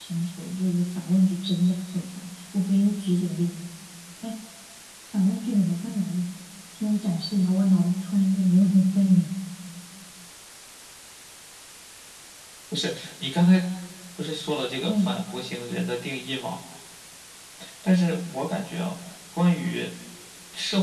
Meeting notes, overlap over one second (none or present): none